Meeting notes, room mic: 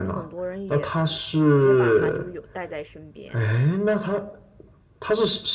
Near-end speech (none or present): present